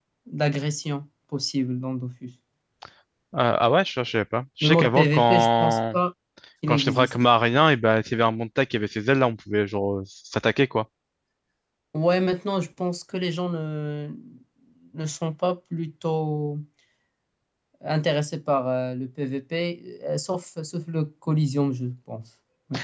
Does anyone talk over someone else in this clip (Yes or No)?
Yes